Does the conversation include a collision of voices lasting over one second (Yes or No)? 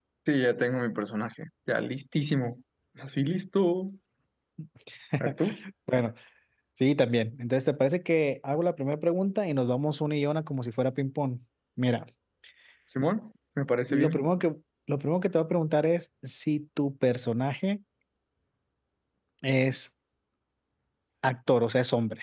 No